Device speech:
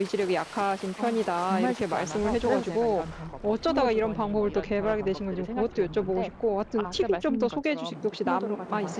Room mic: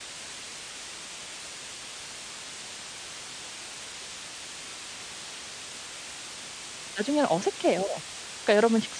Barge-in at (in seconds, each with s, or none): 6.9 s